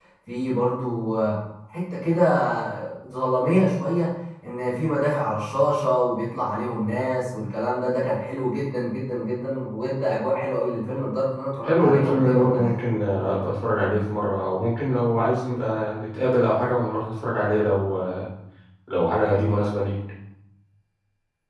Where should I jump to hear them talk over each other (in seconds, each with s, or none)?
11.6 s